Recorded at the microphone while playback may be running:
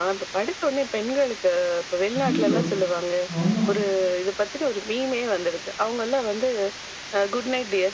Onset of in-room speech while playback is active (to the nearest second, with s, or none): 2 s